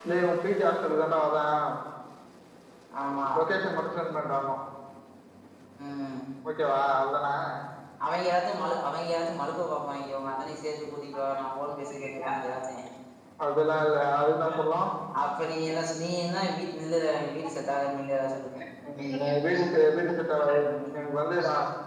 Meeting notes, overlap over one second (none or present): none